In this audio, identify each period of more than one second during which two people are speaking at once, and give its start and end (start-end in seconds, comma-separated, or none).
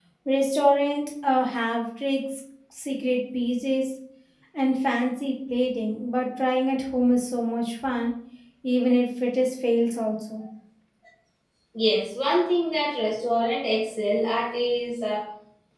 none